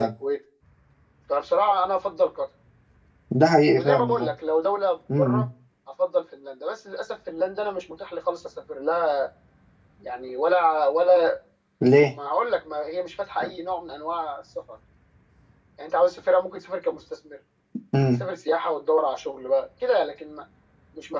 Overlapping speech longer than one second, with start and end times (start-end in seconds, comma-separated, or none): none